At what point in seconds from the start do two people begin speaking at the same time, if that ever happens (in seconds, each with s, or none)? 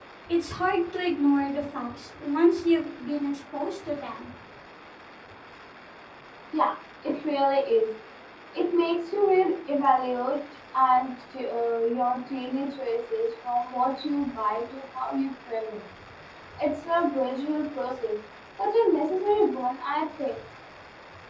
none